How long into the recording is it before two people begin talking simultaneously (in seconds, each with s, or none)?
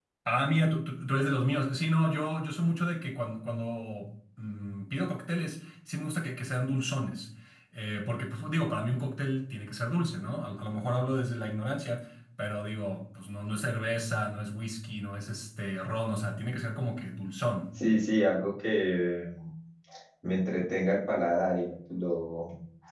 none